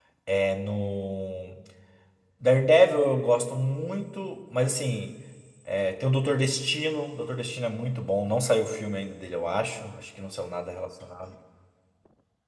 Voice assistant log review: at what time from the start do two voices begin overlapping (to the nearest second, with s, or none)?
none